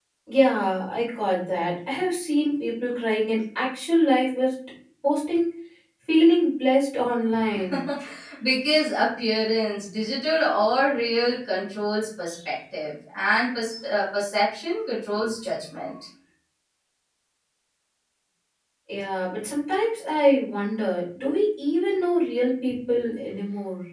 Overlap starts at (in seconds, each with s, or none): none